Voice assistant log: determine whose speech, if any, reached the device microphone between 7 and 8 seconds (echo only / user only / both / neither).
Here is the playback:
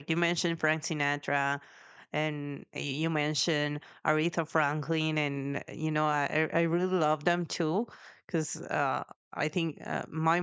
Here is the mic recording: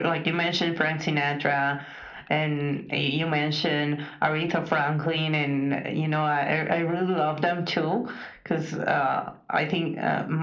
echo only